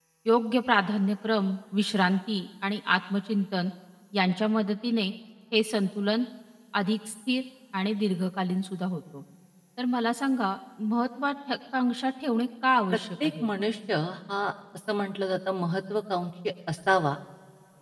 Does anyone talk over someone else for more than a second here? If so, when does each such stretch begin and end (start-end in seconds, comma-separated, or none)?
none